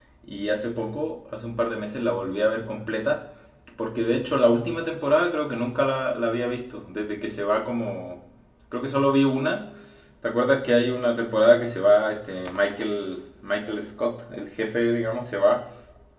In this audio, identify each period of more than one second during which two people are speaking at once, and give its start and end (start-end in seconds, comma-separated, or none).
none